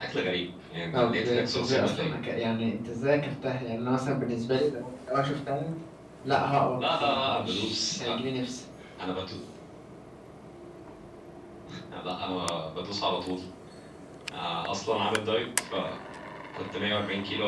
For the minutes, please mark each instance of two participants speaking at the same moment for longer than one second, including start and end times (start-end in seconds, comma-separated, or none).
0.9-2.1, 6.8-8.1